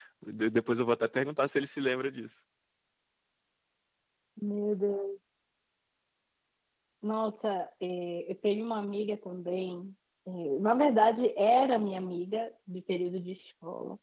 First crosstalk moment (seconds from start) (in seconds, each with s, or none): none